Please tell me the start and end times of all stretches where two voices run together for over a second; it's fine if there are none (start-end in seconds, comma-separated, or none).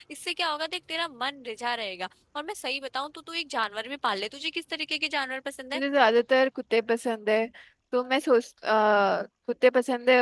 none